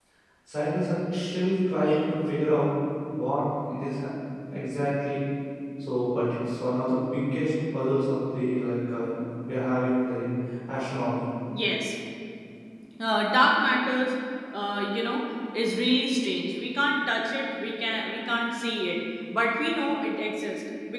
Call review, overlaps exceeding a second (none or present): none